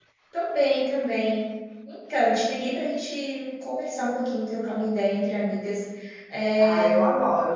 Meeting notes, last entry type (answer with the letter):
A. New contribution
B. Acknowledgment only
A